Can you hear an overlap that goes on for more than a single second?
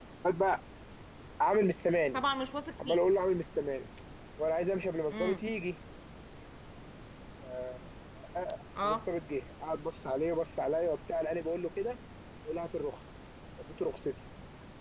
No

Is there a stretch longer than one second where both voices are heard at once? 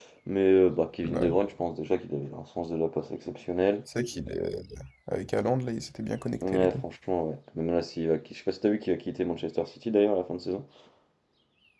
No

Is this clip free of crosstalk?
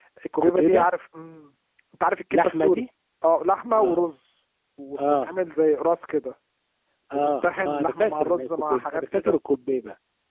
No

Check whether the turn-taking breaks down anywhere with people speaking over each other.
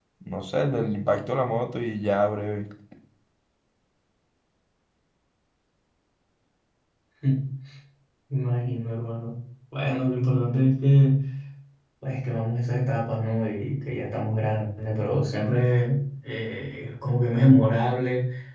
No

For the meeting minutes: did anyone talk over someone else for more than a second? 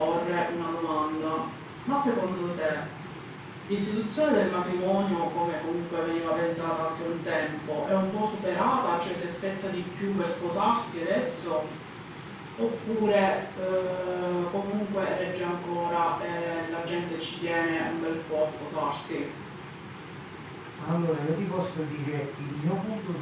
No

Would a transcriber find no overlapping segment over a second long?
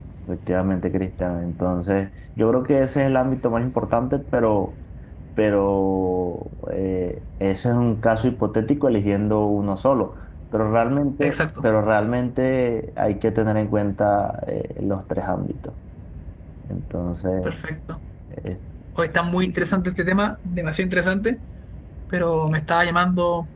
Yes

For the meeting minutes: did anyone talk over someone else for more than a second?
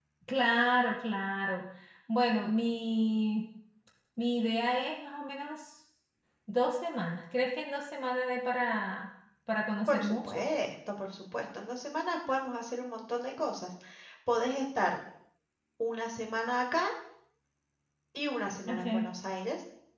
No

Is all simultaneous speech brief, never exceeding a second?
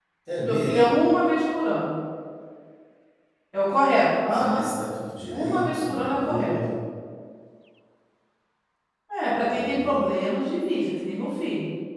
No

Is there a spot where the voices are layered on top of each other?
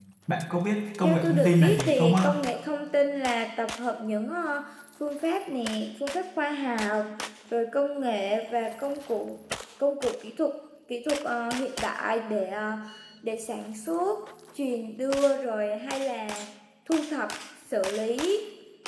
Yes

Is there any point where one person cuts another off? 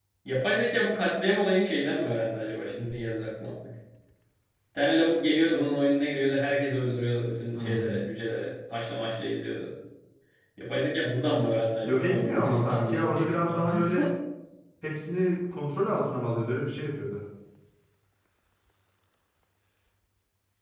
Yes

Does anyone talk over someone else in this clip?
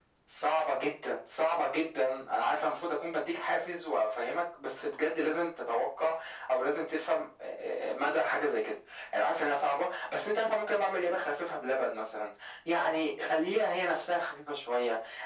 No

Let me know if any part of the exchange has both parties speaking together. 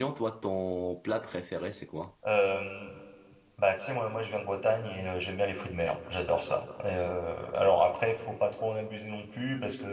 No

